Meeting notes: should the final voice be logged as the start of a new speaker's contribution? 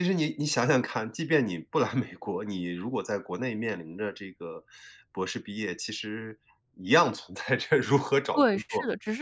Yes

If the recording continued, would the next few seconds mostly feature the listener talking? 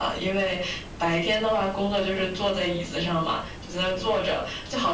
No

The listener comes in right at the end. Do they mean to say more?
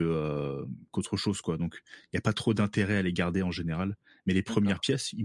No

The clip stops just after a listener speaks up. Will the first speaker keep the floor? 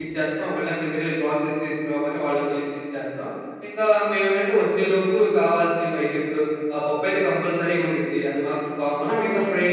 Yes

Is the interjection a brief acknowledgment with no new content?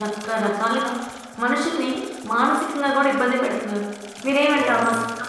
Yes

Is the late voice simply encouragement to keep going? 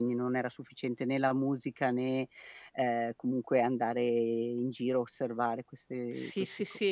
No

